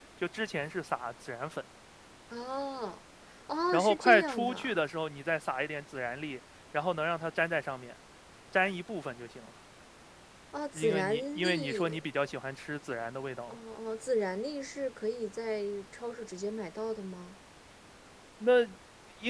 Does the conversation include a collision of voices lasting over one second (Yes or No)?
Yes